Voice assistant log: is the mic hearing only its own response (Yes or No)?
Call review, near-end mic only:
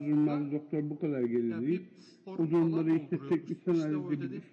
No